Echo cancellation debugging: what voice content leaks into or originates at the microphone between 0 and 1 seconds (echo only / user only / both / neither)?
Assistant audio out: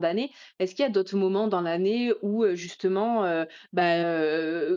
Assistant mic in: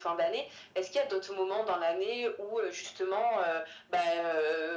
echo only